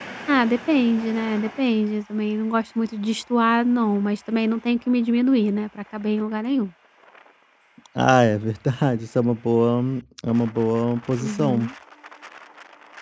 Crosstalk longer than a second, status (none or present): none